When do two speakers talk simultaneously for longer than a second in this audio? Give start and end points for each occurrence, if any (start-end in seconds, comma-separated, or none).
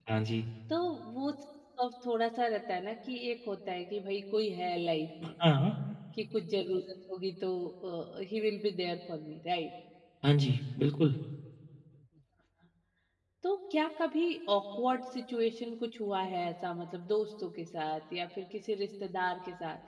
none